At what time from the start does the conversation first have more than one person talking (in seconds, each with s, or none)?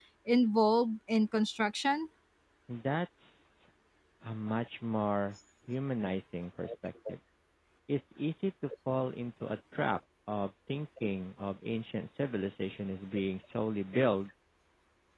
none